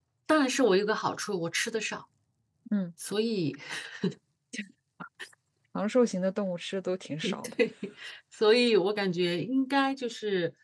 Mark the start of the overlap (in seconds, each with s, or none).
none